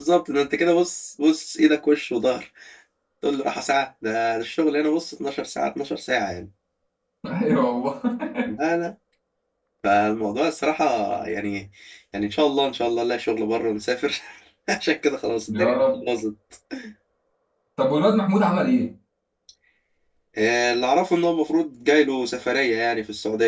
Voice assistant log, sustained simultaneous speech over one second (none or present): none